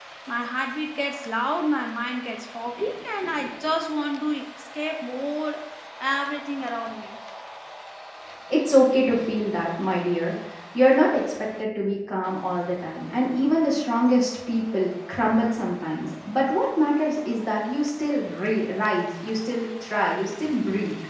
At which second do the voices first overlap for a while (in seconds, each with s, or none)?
none